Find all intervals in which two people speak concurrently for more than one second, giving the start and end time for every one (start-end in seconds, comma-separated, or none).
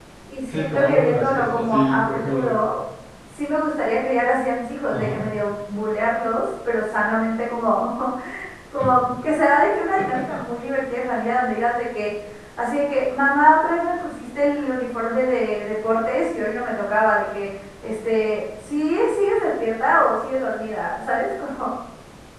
0.5-2.5